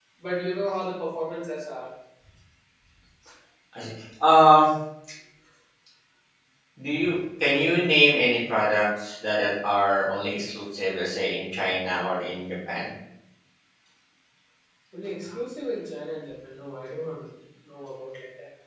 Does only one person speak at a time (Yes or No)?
Yes